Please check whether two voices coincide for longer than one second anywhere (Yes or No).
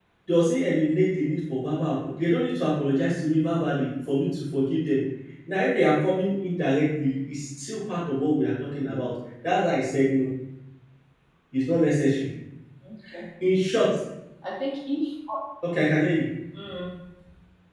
No